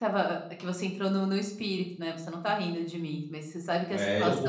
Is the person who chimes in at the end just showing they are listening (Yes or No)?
No